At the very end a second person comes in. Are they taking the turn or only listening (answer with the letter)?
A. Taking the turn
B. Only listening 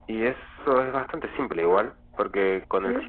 B